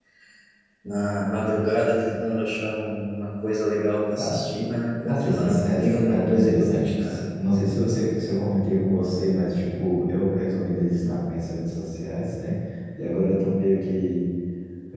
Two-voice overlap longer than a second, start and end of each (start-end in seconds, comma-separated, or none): 5.1-7.2